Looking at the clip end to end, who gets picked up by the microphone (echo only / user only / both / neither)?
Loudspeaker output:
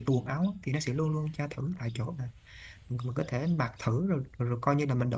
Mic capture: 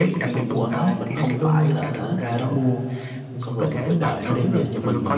both